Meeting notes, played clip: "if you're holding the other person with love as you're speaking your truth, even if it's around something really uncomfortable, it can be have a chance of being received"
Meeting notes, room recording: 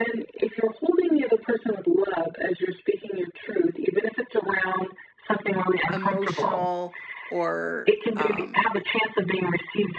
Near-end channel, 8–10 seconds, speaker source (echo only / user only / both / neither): both